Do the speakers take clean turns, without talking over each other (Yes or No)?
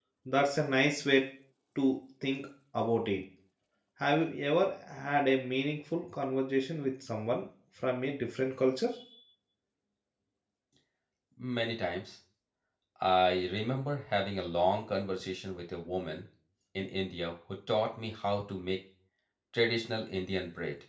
Yes